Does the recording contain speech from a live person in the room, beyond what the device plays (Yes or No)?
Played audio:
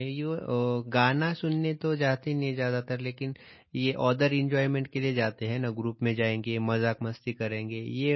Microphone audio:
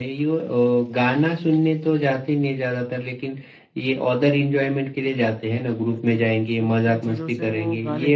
Yes